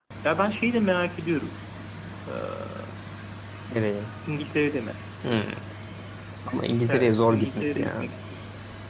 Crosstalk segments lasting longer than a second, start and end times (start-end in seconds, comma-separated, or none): 6.9-8.1